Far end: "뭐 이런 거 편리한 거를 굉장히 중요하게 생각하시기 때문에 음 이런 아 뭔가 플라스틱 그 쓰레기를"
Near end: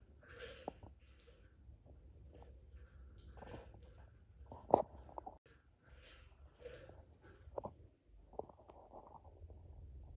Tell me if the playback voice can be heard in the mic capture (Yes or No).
No